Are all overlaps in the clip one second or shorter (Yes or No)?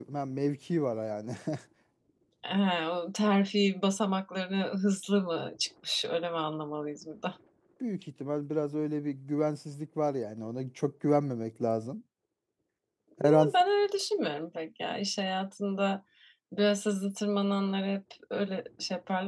Yes